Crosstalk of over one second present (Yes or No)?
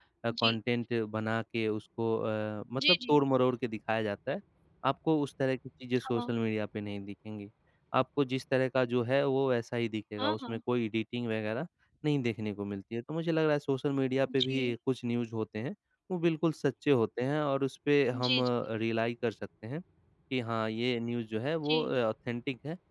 No